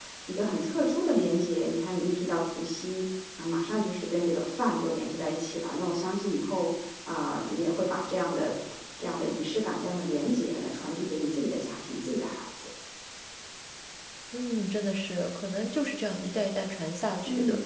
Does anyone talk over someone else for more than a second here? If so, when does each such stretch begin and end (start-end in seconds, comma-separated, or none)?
none